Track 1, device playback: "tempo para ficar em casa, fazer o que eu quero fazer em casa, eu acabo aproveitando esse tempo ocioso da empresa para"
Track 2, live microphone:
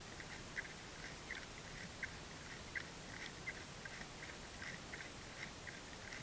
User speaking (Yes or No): No